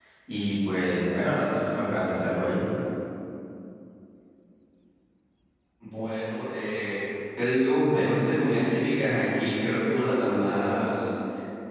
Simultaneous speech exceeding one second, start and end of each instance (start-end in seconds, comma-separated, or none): none